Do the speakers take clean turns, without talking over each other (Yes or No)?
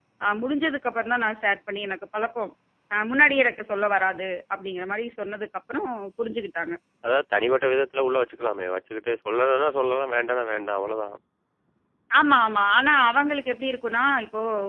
Yes